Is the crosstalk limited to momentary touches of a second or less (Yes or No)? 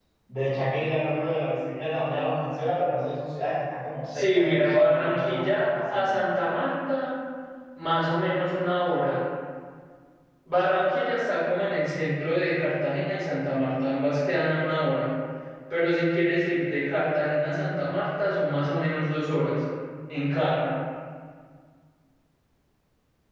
No